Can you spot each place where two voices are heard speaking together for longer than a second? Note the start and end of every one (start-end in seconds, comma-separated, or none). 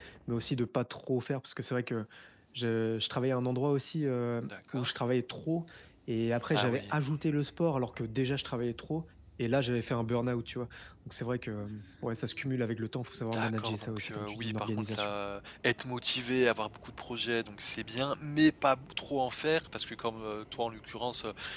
13.3-15.1